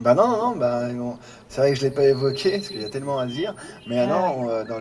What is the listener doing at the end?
listening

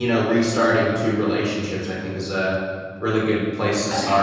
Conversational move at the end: taking over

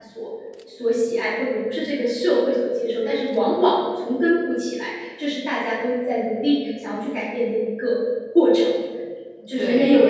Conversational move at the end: taking over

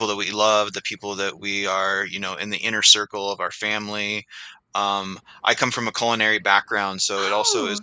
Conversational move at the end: listening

